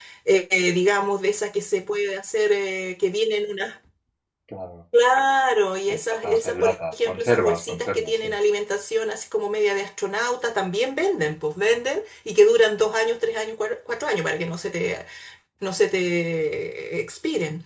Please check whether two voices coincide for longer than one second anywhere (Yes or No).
Yes